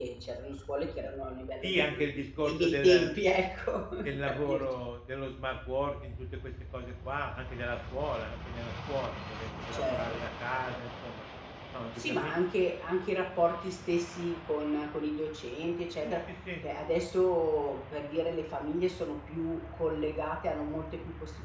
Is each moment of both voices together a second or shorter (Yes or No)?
No